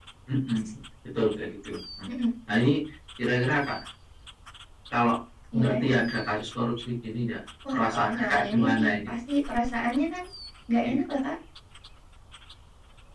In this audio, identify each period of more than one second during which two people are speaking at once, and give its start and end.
7.7-9.1

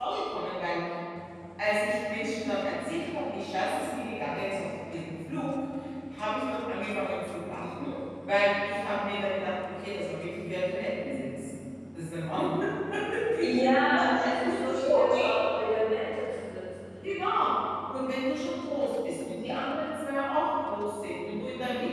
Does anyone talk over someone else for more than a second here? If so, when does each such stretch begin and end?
13.9-15.5

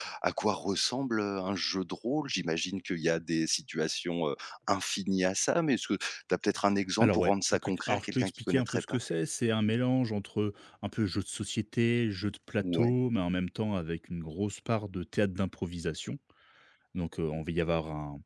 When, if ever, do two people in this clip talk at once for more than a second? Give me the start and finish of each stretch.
7.0-9.0

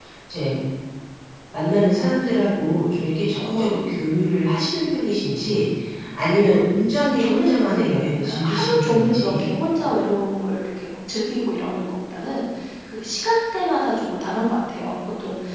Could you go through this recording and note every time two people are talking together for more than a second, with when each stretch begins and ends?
7.2-9.5

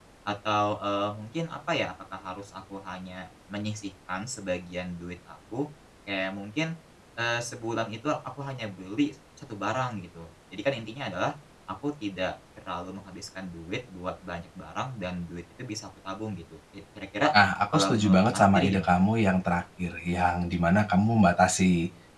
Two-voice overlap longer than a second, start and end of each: 17.7-19.0

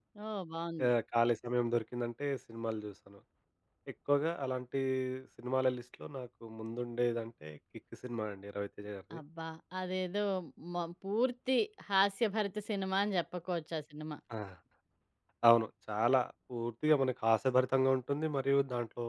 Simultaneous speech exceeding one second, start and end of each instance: none

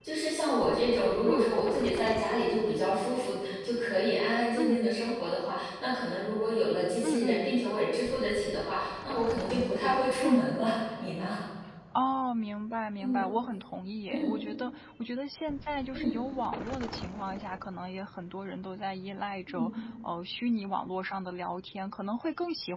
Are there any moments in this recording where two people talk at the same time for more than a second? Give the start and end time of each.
none

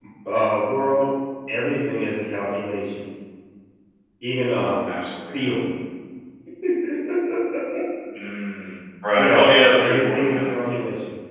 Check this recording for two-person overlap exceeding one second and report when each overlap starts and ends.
9.2-10.5

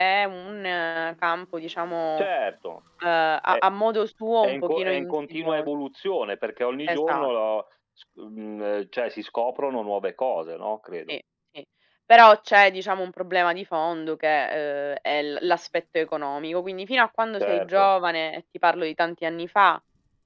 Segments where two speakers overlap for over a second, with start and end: 4.4-5.7

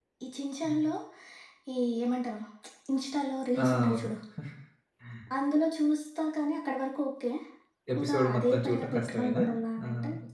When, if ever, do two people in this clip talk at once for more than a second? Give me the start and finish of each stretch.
8.0-9.4

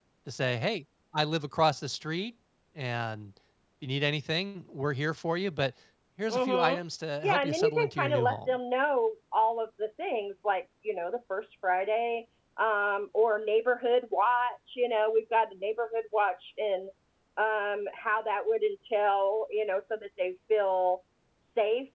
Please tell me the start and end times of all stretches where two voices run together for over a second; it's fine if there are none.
7.2-8.5

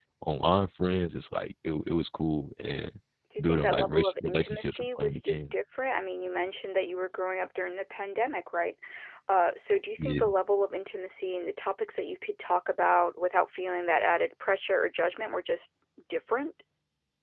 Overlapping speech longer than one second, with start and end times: 3.4-5.4

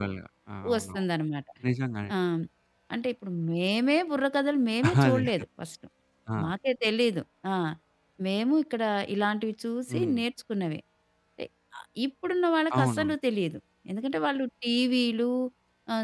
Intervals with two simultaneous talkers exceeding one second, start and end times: none

